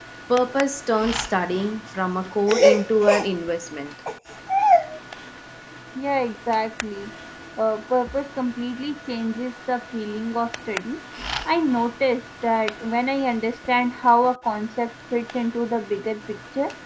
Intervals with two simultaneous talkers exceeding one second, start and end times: none

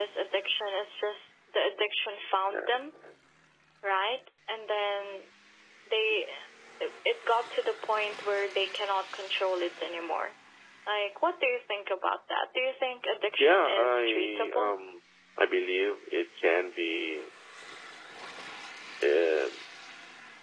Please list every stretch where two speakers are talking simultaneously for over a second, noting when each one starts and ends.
13.4-14.7

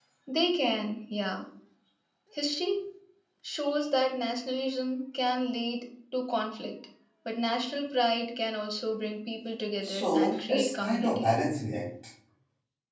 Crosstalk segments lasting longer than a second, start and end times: 9.8-11.3

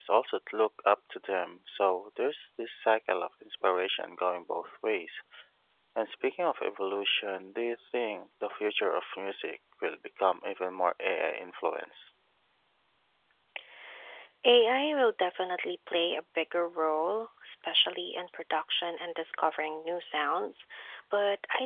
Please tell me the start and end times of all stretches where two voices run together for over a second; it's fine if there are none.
none

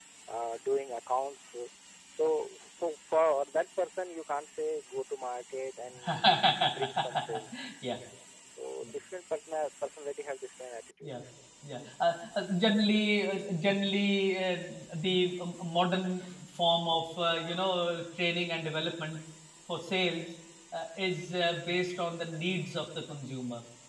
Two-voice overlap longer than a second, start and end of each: none

